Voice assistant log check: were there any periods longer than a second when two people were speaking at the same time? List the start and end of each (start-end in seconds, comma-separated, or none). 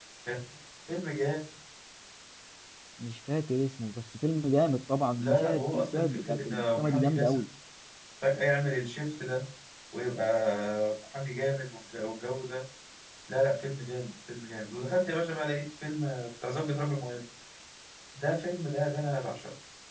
5.2-7.4